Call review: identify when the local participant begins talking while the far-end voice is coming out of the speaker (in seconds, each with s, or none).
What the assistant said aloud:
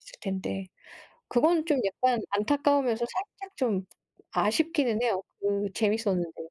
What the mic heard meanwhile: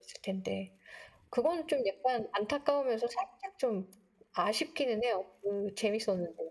none